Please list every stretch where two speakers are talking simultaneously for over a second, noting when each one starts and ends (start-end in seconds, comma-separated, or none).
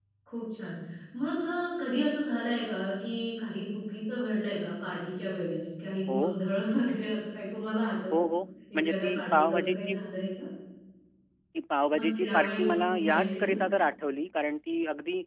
8.7-9.9, 11.9-13.5